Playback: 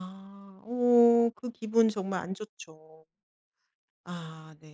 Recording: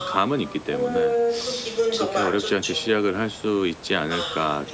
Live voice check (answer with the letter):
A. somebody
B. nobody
A